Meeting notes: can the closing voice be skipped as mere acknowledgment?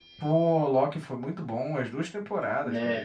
Yes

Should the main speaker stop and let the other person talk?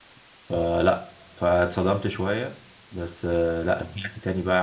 No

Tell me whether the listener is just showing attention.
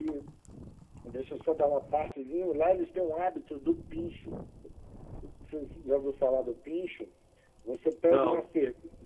Yes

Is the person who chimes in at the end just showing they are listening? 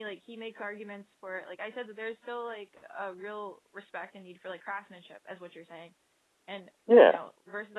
Yes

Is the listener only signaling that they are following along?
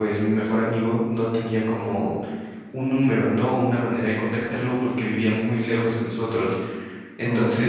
Yes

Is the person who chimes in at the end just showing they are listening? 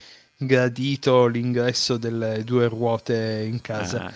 Yes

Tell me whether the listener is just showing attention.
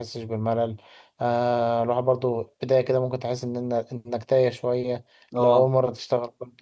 Yes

